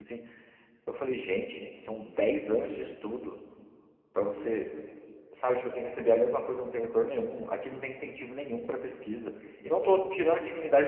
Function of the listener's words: listening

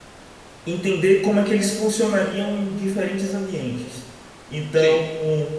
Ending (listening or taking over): listening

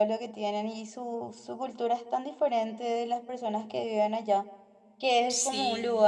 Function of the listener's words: listening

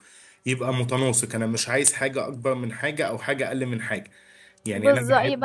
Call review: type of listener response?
taking over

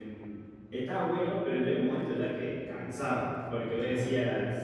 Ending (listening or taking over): listening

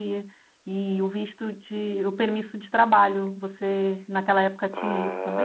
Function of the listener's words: taking over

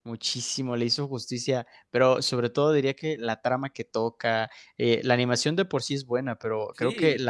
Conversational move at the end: listening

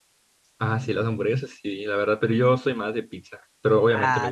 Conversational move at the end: taking over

